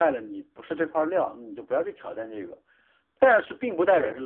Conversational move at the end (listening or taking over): listening